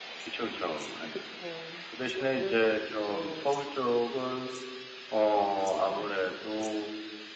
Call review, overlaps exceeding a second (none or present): present